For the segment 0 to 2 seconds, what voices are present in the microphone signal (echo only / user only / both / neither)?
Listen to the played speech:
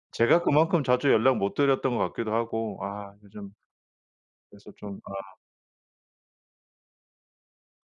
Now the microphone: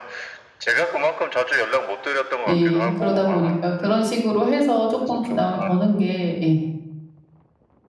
echo only